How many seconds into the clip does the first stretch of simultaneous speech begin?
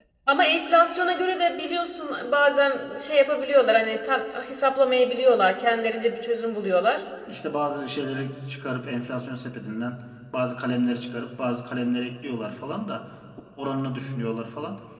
none

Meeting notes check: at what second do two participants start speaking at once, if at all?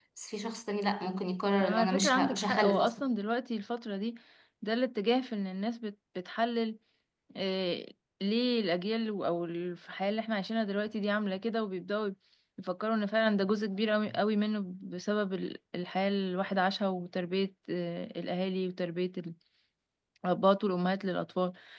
1.6 s

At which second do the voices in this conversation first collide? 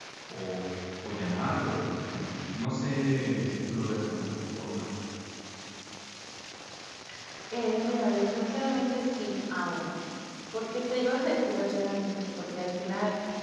none

